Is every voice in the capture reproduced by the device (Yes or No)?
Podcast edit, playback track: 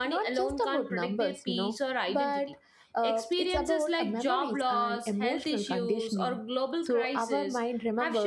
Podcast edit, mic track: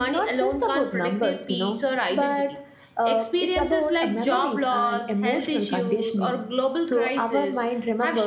Yes